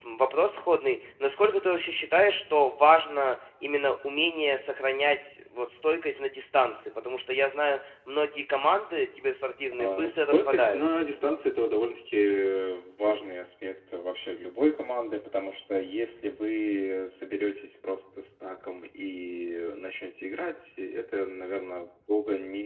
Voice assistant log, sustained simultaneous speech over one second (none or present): present